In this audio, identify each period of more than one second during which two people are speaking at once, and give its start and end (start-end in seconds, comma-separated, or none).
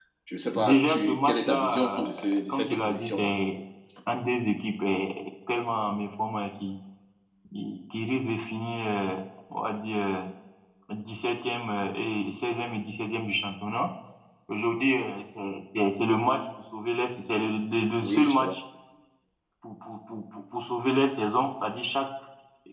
0.5-3.3